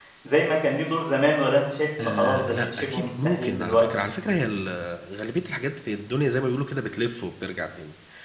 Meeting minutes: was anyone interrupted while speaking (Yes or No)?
Yes